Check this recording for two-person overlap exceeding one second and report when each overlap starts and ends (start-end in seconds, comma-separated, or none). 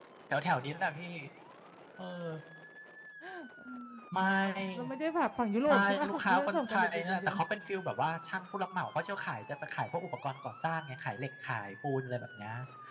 5.7-7.4